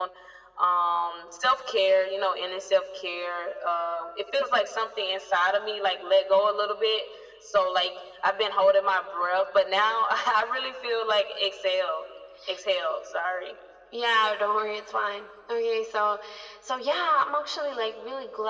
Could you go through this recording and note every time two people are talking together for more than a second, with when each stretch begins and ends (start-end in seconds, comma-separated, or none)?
none